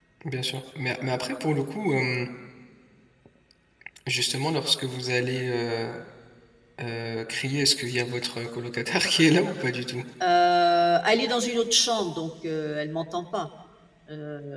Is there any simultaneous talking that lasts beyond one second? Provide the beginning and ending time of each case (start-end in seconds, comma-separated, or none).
none